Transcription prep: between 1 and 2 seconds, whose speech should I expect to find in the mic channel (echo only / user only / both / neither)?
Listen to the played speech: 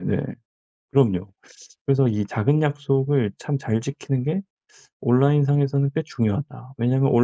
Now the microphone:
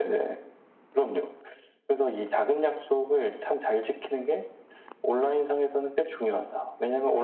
echo only